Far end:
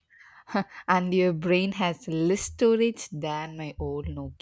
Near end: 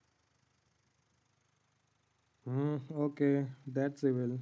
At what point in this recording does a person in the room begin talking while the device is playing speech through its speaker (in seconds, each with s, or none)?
2.4 s